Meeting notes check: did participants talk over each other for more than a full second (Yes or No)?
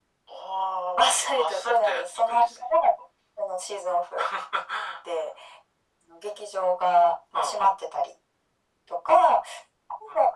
Yes